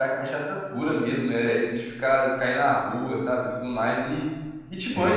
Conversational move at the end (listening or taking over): listening